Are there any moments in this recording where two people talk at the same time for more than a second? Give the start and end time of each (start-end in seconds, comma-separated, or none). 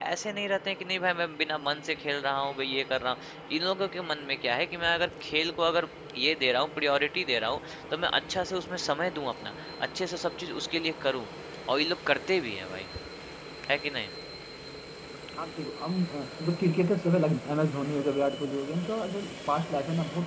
none